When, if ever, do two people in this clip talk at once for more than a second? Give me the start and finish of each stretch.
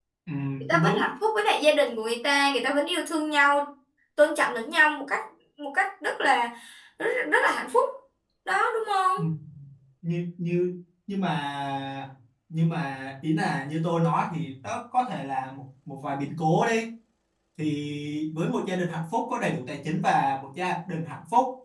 none

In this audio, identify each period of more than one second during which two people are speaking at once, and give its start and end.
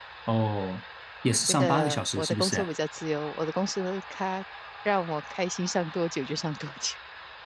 1.4-2.7

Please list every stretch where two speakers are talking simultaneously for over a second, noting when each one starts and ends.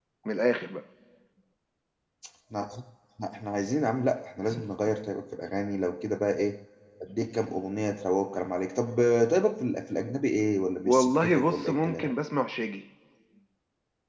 10.8-12.1

